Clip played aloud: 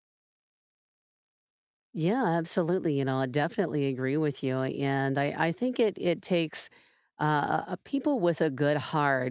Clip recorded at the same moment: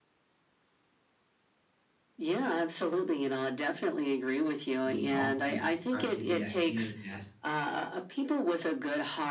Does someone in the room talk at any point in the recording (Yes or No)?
Yes